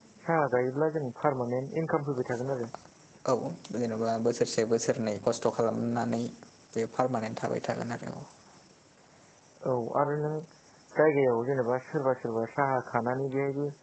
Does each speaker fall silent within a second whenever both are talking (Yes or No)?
Yes